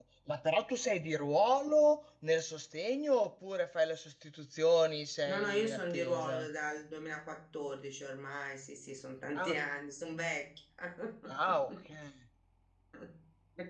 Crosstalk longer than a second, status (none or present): present